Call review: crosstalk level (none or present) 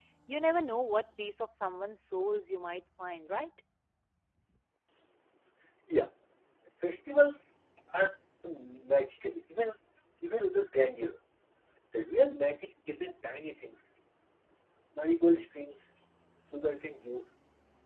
none